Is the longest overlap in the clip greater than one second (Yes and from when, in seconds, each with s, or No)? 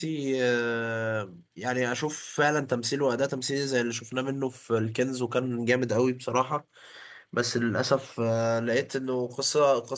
No